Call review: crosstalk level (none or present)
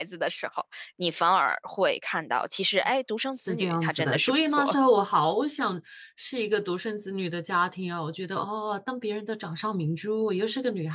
present